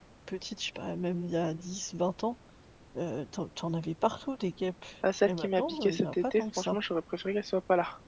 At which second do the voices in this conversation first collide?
5 s

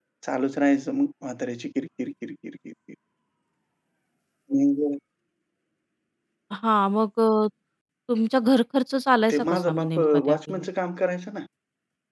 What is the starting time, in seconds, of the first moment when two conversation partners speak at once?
9 s

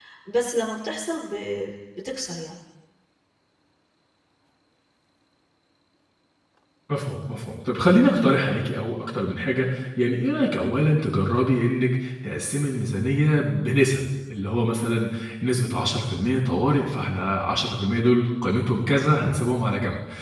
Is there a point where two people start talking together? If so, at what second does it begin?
none

